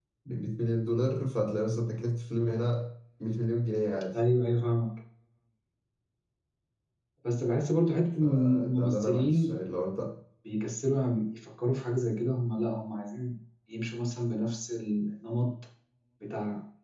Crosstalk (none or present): present